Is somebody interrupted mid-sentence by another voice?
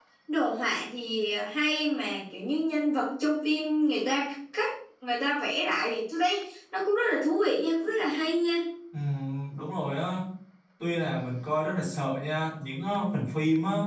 No

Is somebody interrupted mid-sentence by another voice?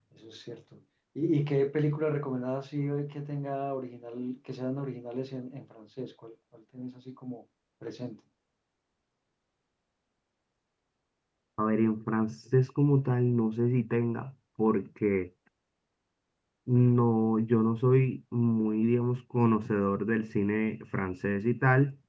No

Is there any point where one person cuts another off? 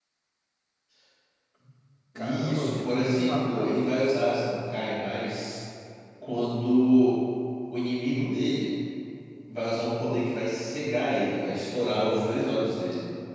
Yes, from 2.1 s

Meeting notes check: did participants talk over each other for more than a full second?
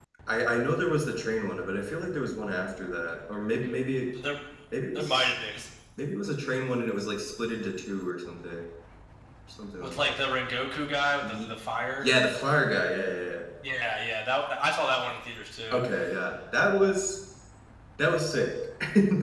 No

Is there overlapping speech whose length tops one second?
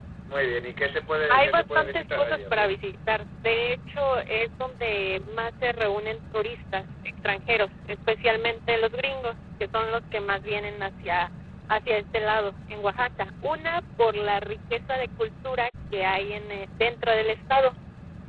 Yes, from 1.3 s

